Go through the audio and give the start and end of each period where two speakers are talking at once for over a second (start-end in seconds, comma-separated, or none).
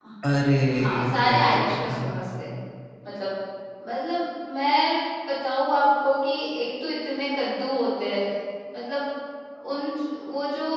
0.8-2.0